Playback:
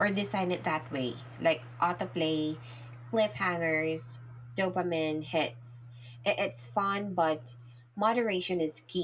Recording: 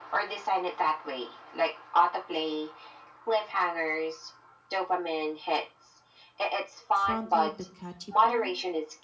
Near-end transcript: front load the catchy part,

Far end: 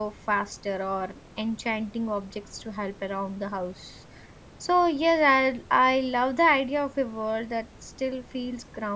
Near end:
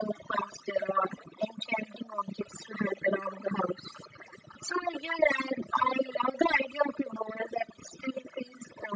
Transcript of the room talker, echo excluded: none

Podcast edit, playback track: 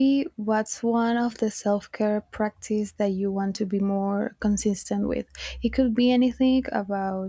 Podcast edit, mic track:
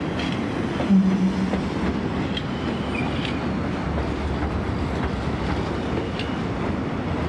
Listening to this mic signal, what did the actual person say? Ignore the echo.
um,

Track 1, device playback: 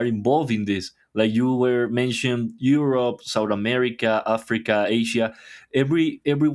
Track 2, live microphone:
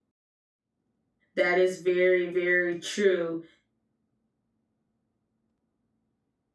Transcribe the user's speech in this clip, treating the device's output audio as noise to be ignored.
that is very very true.

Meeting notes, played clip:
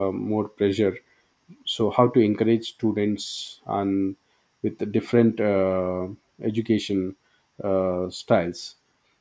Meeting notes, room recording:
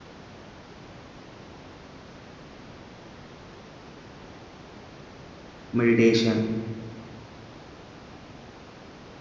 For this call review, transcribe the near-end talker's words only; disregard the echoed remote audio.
meditation

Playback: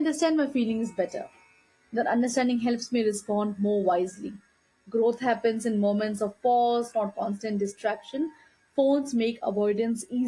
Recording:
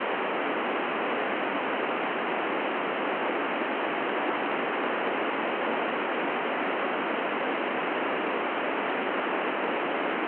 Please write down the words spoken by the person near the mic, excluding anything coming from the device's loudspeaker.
none

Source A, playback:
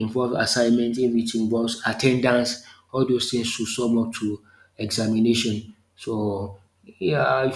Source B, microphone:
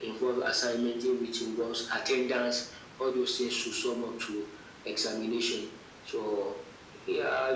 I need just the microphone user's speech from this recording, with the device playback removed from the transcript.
none

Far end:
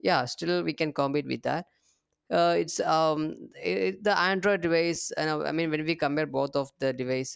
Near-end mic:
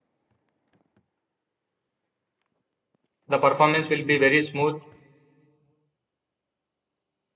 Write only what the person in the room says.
the performance will be very smooth.

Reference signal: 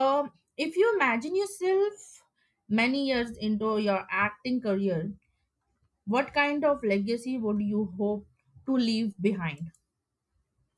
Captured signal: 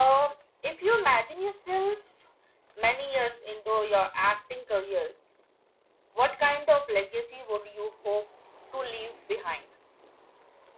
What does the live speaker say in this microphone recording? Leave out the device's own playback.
none

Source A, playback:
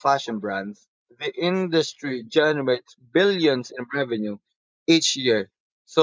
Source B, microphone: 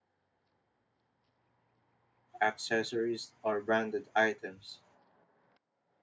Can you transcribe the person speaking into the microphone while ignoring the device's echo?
accessories, or branded items.

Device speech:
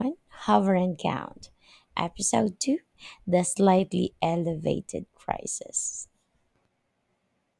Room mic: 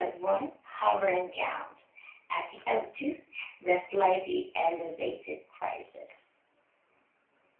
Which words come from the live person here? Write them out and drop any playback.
none

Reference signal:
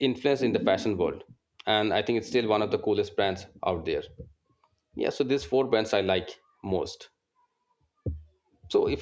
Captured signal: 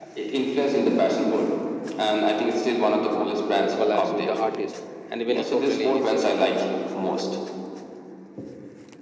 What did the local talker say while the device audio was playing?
collabs with the artist, and even eco friendly initiatives.

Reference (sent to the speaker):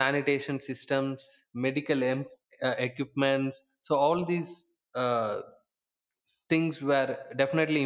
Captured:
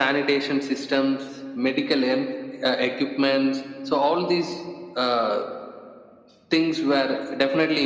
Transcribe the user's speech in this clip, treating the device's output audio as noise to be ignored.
none

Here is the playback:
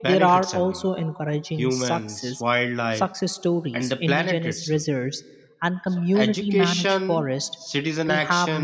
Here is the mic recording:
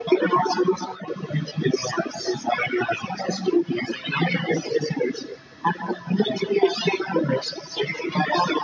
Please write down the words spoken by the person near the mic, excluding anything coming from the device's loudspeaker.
none

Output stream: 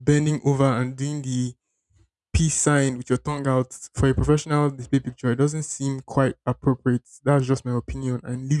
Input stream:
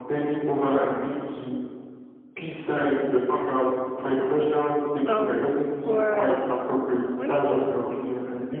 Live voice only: Um, for when it comes to

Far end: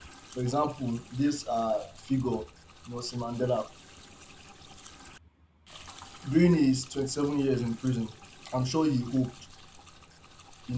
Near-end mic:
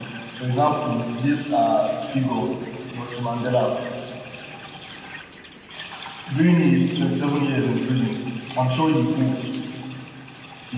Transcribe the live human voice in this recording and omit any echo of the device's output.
none

